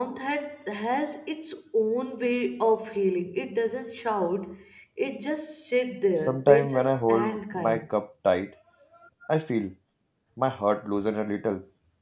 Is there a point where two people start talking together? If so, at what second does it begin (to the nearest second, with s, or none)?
6 s